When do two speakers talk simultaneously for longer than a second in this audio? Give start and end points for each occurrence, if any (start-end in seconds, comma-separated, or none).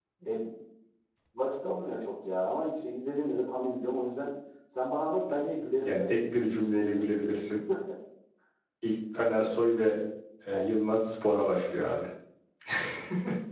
5.8-7.2